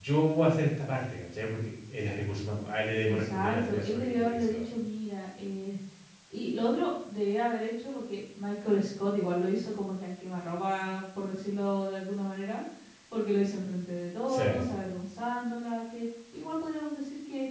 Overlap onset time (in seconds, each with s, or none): 3.1 s